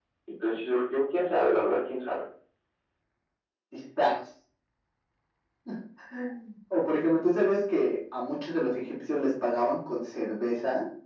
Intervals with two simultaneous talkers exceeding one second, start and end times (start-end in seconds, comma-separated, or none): none